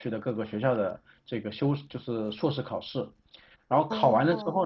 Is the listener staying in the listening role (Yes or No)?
Yes